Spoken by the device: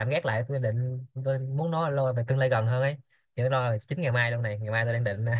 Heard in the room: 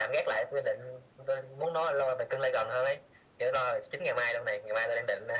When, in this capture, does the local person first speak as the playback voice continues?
none

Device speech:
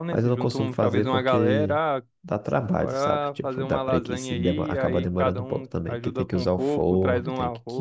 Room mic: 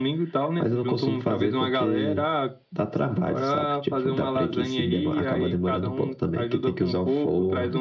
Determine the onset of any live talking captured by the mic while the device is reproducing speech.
none

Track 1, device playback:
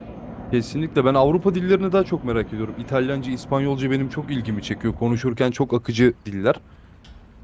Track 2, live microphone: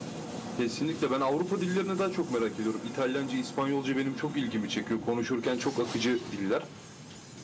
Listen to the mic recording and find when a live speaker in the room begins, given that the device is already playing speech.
none

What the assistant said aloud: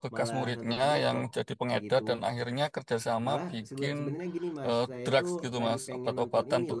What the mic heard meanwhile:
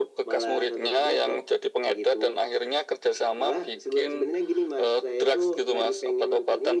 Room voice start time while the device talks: none

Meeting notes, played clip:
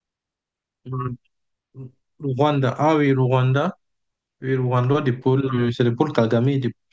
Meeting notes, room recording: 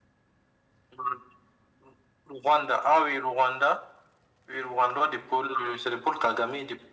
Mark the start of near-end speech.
none

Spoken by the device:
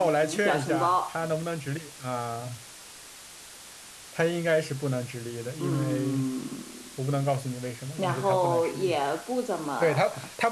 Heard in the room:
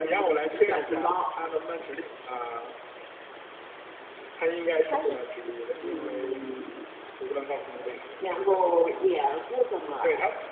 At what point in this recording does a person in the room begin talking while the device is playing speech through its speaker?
4.8 s

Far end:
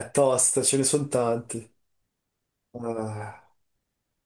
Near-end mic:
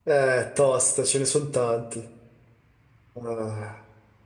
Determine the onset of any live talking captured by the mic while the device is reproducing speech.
none

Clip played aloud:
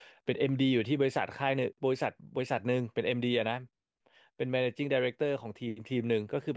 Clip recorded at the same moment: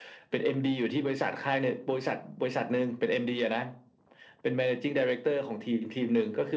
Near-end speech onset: none

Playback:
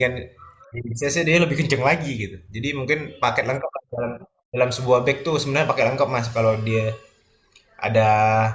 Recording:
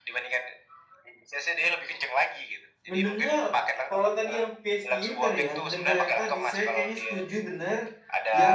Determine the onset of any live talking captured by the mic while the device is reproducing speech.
2.9 s

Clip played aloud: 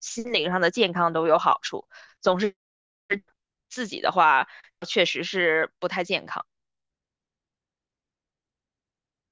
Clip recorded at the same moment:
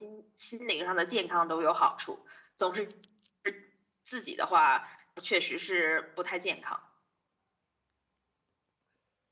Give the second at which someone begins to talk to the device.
none

